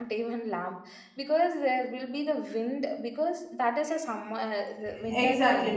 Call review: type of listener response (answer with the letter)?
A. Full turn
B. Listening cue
A